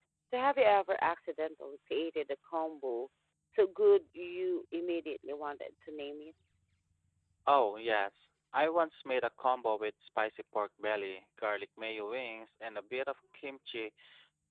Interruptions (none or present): none